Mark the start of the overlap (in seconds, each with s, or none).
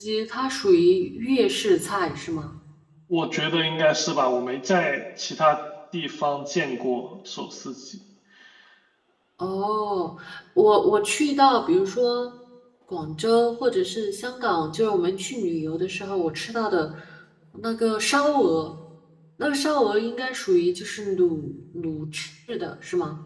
none